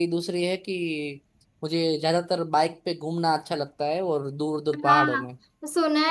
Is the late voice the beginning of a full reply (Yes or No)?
Yes